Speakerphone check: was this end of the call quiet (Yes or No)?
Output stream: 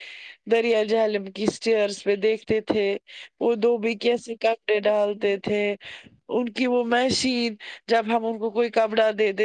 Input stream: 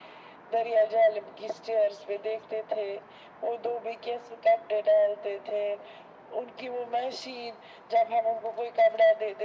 Yes